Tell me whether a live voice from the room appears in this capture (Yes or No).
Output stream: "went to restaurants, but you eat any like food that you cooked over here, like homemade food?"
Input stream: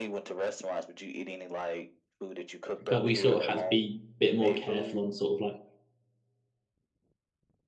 Yes